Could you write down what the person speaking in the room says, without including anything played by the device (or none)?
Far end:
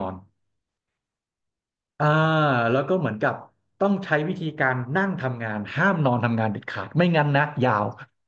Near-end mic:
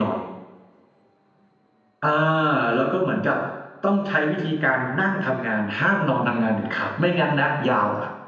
none